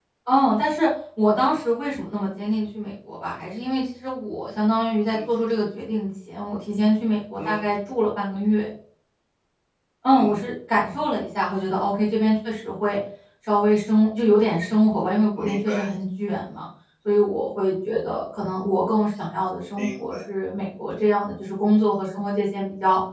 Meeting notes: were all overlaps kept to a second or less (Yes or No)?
Yes